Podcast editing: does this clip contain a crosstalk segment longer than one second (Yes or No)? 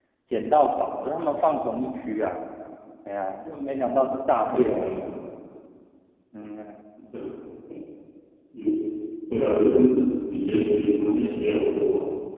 No